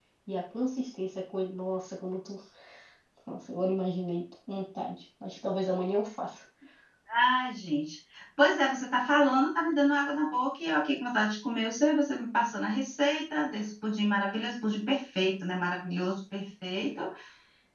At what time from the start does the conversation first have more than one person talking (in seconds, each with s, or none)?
none